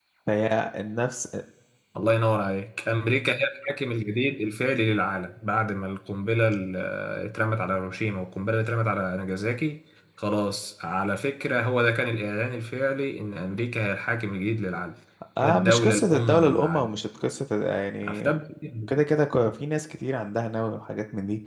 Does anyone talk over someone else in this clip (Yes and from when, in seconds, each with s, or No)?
Yes, from 15.4 s